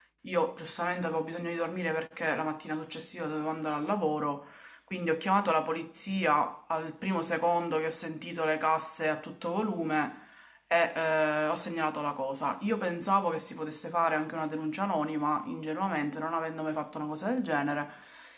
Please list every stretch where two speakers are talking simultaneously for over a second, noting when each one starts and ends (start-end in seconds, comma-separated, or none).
none